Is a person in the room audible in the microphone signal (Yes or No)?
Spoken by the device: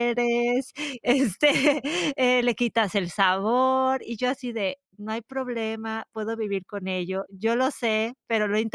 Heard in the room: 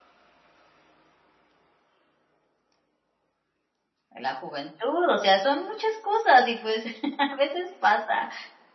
Yes